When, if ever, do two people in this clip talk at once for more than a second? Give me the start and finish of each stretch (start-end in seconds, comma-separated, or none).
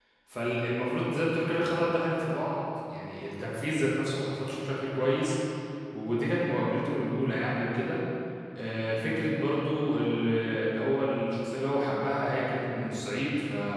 none